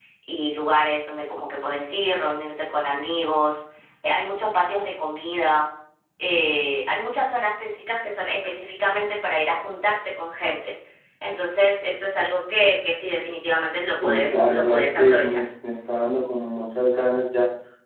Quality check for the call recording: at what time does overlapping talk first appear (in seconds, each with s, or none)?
14.0 s